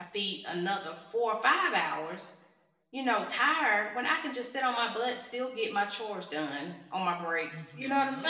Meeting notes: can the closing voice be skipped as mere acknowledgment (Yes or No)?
No